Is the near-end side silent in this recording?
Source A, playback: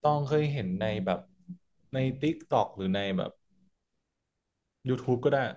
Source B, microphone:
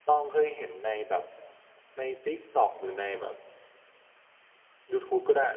Yes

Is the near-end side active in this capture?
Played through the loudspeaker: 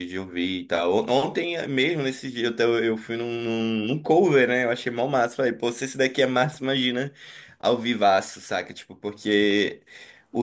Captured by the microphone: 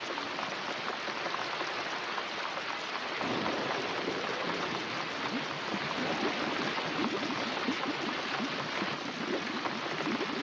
No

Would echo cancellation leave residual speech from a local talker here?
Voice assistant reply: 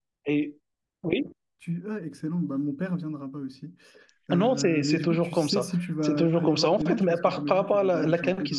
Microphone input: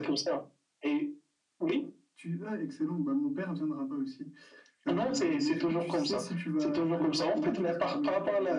No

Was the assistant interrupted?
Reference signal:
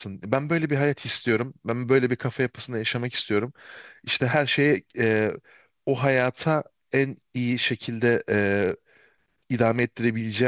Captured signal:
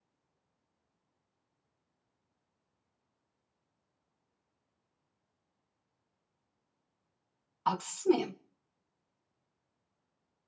Yes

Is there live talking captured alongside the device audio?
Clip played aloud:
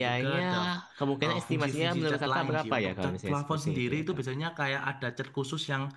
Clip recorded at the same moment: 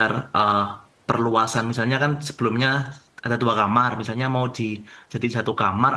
Yes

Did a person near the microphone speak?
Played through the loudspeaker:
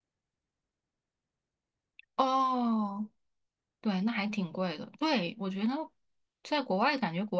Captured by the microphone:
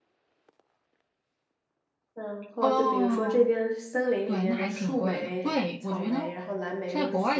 Yes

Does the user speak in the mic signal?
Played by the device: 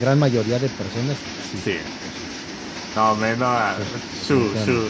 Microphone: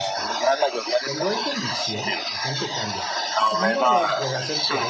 Yes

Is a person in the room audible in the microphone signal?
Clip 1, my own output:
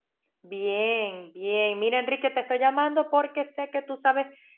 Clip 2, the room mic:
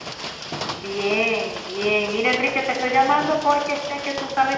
No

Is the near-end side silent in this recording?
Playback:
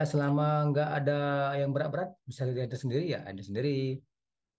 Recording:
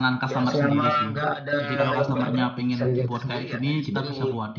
No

